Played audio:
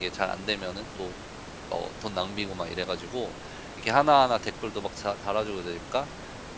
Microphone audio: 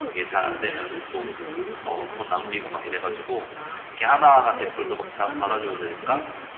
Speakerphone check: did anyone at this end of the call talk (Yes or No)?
Yes